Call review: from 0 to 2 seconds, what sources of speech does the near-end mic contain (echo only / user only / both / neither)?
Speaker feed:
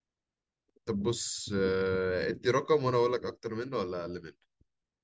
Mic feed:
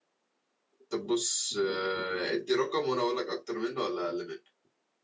echo only